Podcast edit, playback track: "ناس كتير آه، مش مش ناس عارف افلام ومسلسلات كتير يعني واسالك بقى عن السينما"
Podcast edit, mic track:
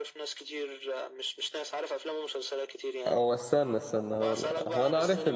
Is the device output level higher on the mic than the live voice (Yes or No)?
No